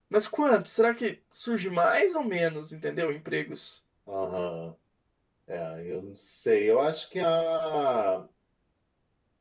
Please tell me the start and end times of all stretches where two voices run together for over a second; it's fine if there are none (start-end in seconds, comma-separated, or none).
none